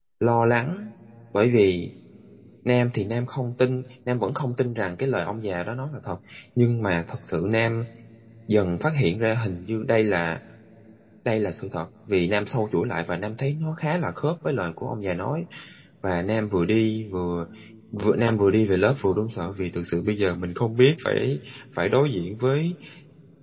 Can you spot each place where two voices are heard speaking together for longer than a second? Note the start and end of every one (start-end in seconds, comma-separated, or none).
none